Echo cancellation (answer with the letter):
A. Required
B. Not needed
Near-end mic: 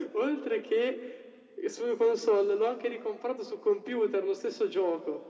A